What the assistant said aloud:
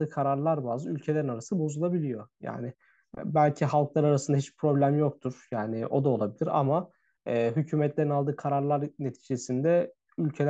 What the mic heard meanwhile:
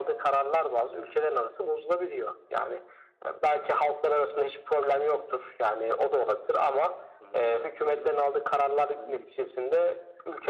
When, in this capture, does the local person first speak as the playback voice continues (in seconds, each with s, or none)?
7.2 s